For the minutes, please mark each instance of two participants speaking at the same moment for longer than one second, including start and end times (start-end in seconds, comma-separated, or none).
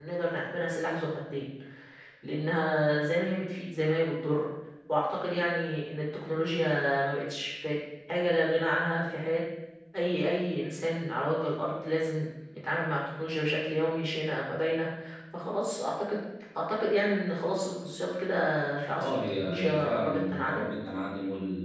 19.0-20.7